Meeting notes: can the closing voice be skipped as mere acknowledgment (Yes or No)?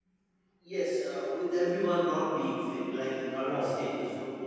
No